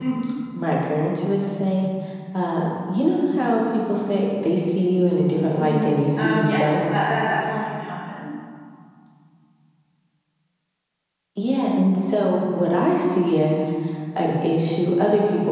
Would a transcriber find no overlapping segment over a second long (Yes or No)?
No